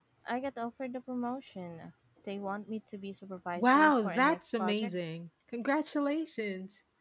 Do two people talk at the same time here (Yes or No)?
Yes